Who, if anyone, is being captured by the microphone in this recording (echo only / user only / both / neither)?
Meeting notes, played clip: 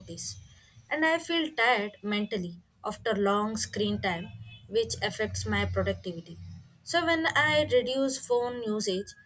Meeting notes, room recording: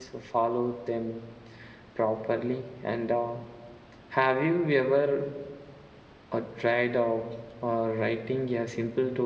user only